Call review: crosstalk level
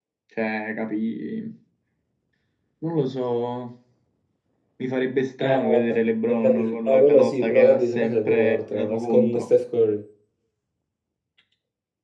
present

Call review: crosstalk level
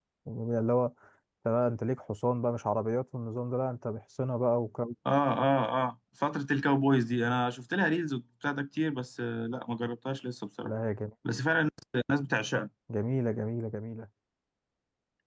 none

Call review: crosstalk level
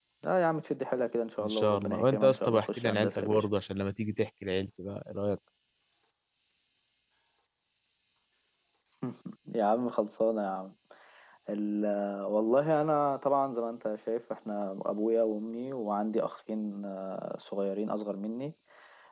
present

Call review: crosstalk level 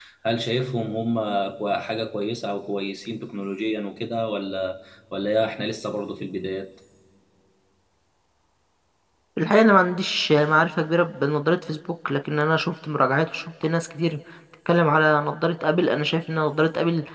none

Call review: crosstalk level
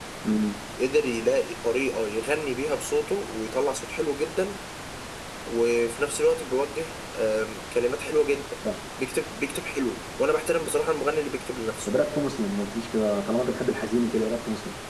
none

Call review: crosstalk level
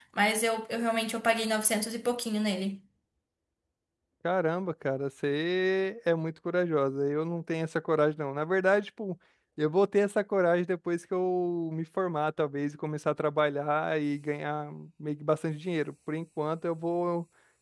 none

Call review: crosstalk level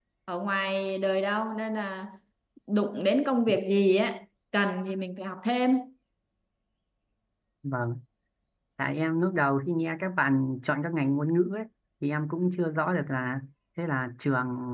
none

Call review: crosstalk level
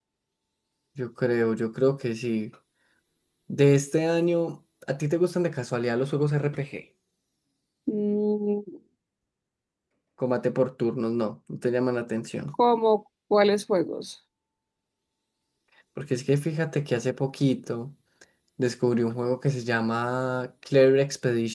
none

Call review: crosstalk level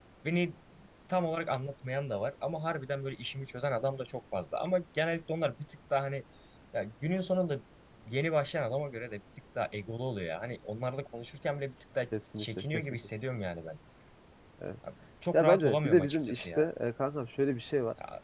present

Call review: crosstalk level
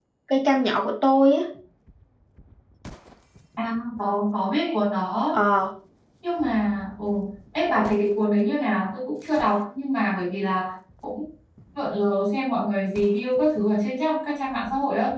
none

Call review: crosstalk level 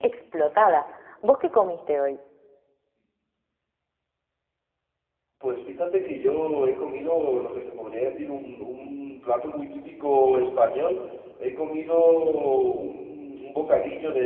none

